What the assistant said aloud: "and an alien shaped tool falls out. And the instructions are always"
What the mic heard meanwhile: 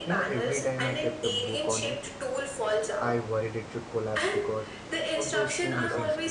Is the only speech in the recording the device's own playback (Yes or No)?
No